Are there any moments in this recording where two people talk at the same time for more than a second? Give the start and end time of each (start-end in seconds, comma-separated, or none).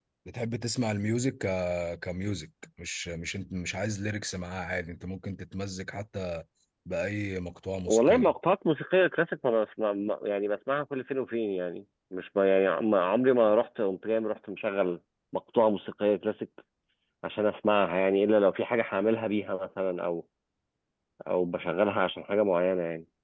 none